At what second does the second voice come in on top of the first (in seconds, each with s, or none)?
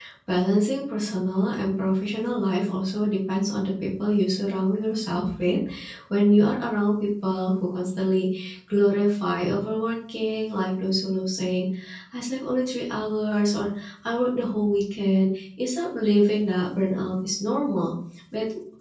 none